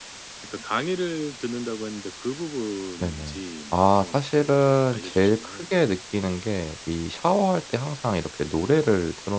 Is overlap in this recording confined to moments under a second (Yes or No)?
No